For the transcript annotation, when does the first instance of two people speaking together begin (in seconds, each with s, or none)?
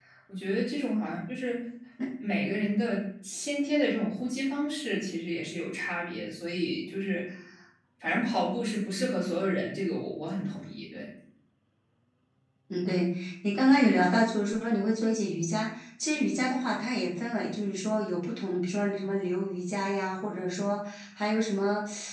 none